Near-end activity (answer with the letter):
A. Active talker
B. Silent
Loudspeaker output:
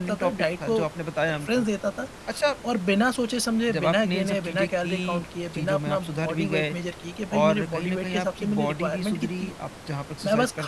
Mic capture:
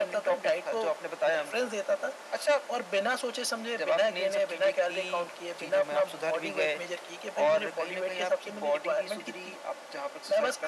B